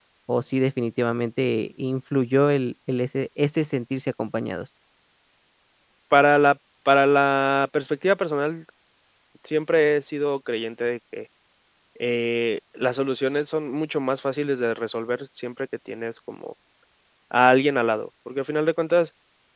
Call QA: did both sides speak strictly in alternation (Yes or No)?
Yes